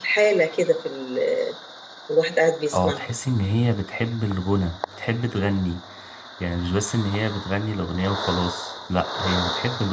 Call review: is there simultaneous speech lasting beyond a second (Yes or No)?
No